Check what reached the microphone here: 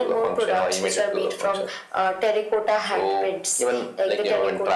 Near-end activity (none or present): none